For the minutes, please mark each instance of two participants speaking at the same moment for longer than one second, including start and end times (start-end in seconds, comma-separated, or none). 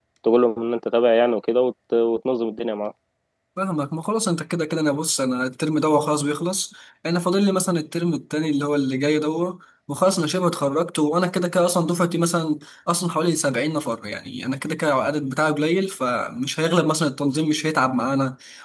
none